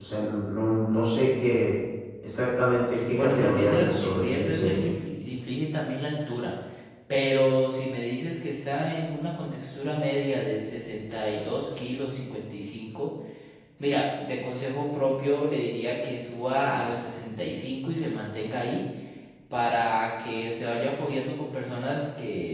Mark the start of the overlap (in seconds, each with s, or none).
2.9 s